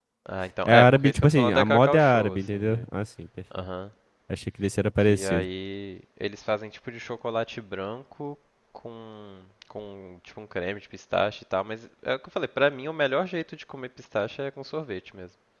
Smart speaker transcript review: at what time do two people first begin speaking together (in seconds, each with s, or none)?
0.7 s